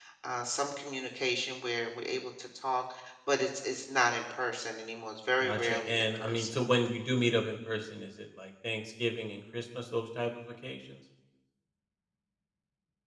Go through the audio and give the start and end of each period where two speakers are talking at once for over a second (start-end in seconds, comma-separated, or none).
5.4-6.7